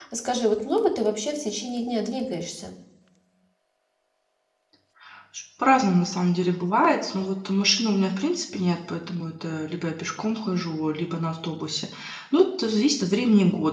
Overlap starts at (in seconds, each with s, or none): none